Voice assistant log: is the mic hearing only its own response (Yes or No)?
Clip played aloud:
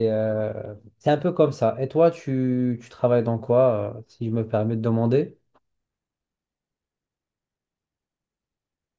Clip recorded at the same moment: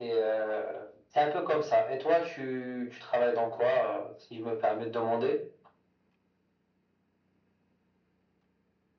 Yes